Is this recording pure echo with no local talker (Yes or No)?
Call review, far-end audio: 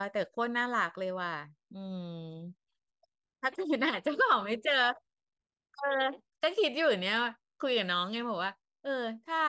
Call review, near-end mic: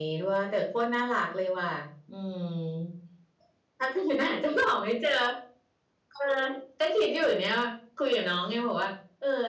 Yes